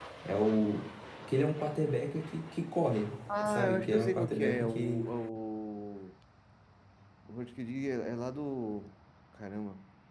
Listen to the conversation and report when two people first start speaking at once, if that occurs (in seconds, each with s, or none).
3.3 s